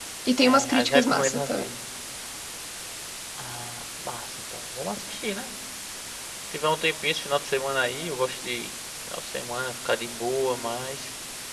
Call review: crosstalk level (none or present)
present